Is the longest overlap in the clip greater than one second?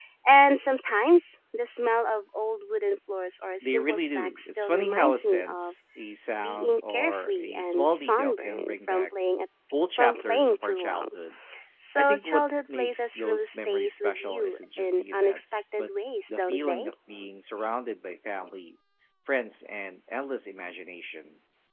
Yes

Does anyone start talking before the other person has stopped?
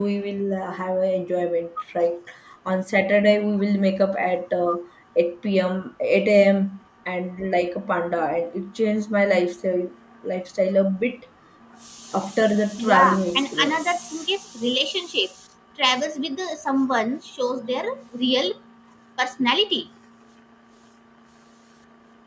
Yes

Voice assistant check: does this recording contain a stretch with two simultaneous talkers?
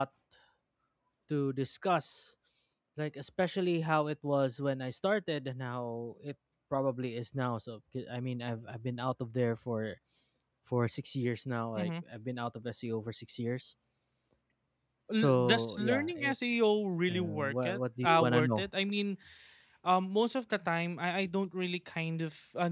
Yes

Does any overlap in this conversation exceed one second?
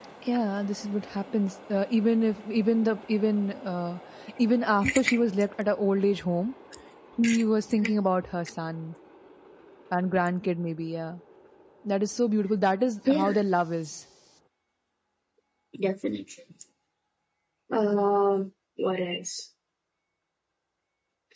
No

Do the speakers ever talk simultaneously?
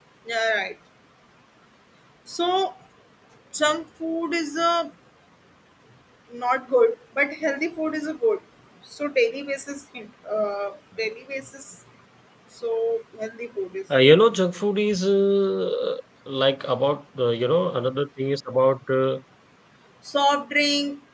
No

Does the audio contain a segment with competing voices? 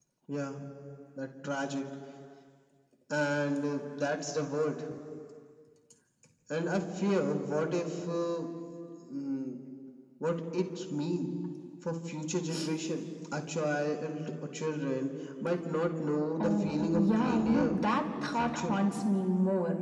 Yes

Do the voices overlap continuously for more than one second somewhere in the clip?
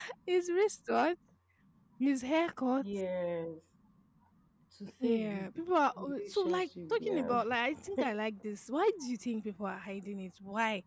Yes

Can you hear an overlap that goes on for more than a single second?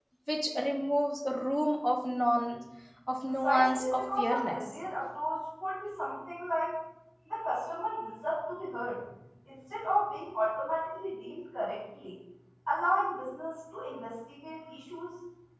Yes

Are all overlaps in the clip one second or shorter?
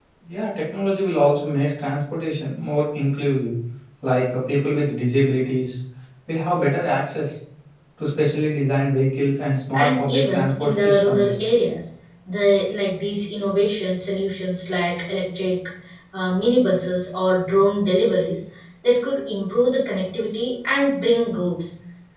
No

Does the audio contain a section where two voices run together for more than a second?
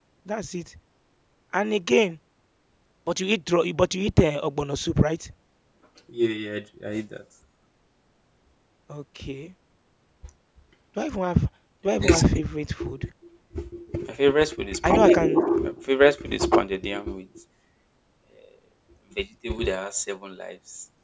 No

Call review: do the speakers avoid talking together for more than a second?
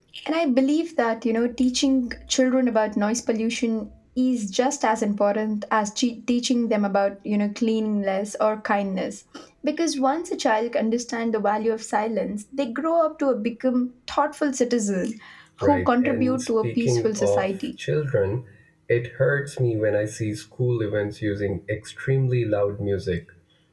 No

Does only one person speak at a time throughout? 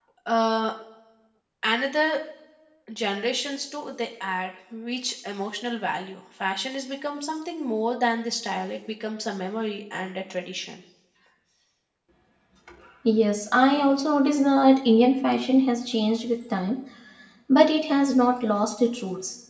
Yes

